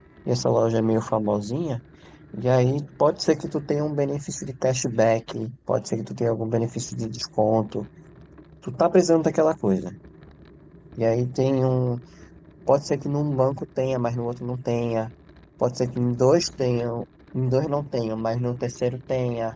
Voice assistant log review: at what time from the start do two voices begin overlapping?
none

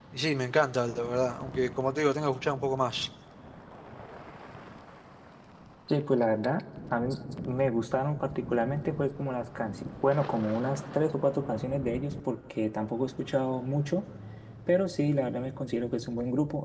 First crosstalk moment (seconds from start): none

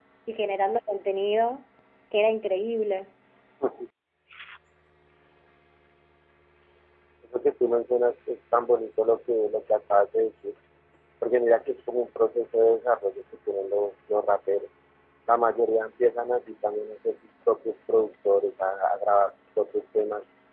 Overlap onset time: none

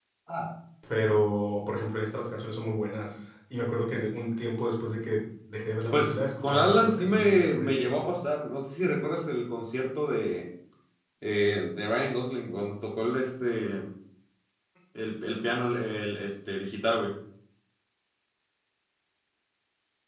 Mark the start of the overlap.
5.9 s

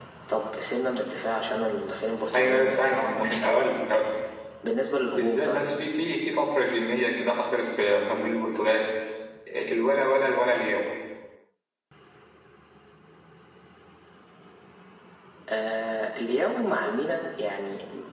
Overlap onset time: 2.3 s

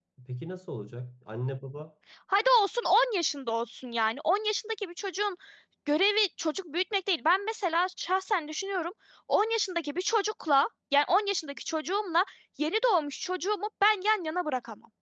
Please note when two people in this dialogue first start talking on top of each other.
none

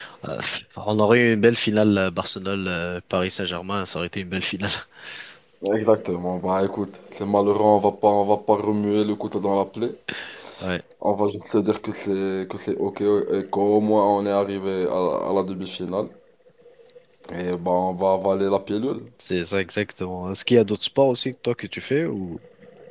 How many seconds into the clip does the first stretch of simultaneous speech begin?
none

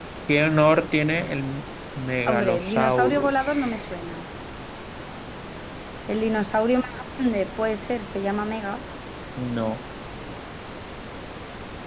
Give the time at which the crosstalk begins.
2.2 s

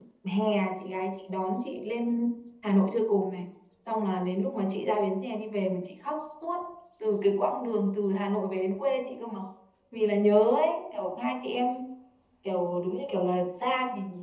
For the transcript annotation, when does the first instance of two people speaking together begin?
none

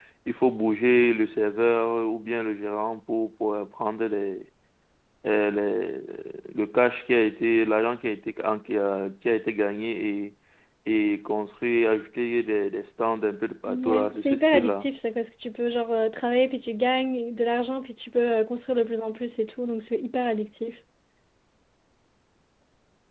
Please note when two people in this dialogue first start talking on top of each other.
13.7 s

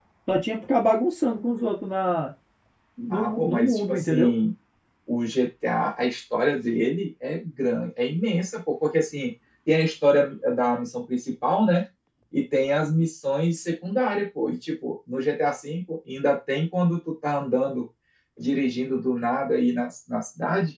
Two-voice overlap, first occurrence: 3.1 s

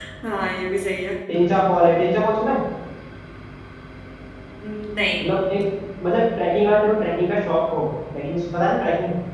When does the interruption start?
none

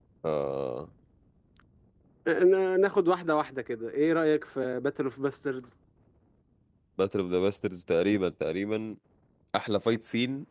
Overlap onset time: none

